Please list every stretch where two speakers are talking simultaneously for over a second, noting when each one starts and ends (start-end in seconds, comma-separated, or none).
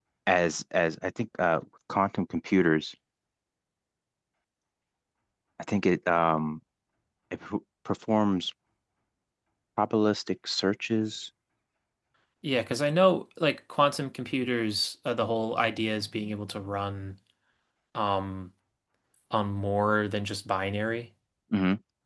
none